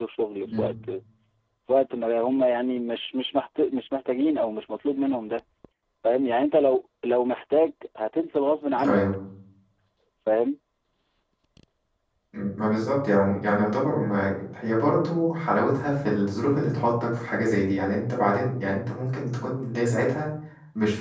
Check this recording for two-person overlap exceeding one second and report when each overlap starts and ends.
none

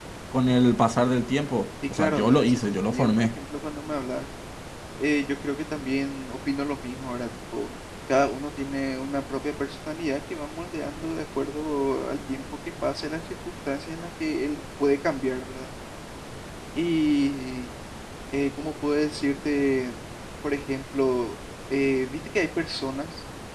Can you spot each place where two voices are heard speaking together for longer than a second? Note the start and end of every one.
1.9-3.3

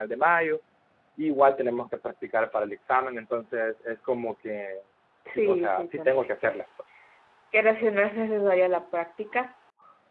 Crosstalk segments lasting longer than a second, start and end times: 5.3-6.6

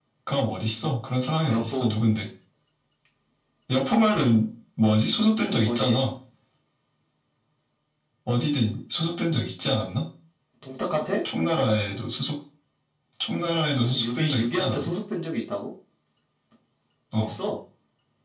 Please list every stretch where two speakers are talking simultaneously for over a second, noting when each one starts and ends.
13.7-14.9

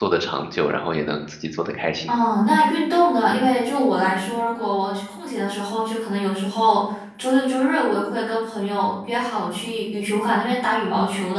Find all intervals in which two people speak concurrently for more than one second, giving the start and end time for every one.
none

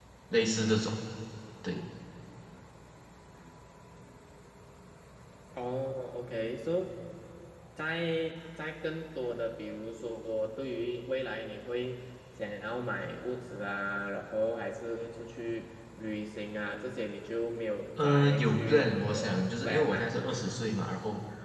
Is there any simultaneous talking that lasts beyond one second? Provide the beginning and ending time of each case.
18.0-20.0

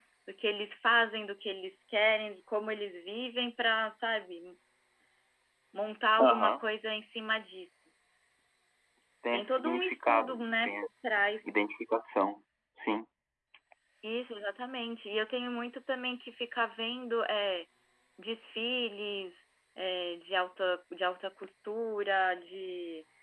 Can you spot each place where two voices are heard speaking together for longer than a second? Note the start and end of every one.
9.3-10.7

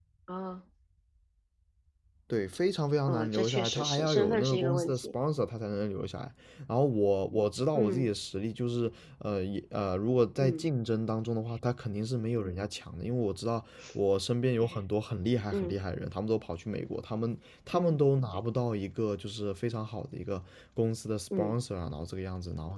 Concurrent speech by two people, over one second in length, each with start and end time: 3.1-5.1

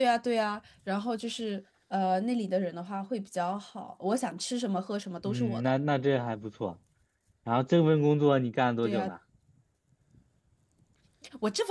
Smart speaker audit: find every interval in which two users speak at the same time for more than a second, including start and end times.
none

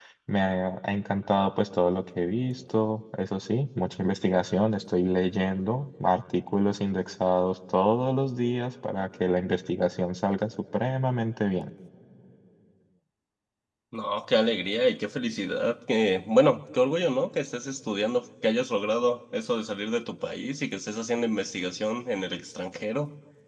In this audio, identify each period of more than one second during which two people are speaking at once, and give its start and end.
none

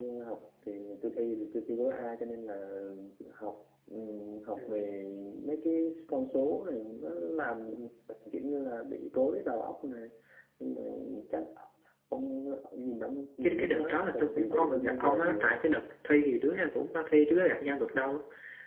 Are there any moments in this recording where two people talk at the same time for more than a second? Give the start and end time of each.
13.4-15.6

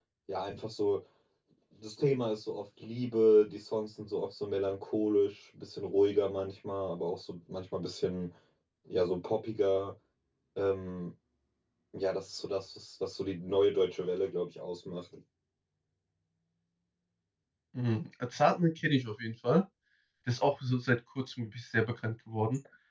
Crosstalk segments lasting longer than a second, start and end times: none

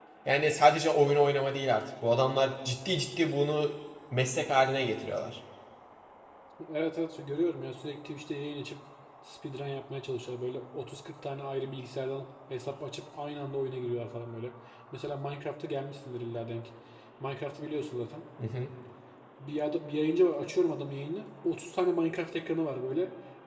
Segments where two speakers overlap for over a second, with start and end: none

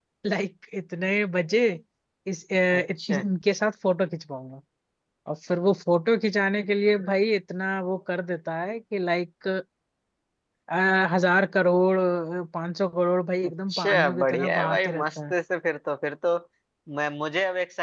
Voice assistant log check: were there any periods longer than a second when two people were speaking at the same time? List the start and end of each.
13.5-15.3

